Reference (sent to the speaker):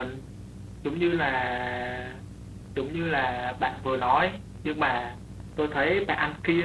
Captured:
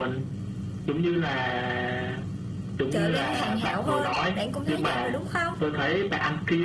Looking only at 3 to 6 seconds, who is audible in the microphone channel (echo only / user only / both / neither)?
both